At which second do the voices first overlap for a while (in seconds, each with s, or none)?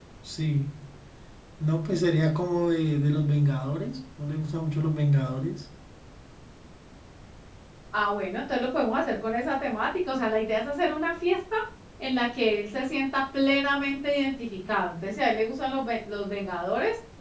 none